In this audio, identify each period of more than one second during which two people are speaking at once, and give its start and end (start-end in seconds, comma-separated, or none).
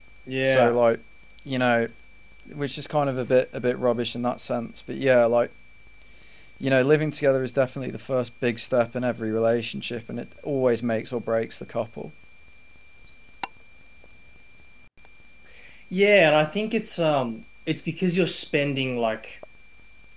none